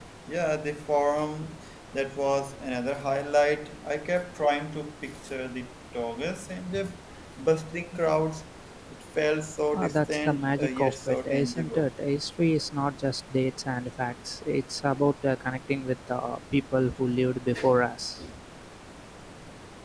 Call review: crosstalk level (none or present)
present